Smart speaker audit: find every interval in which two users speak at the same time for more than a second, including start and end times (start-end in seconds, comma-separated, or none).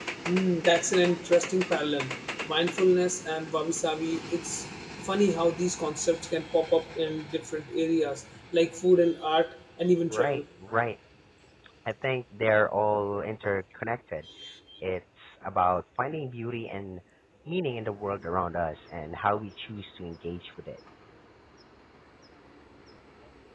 none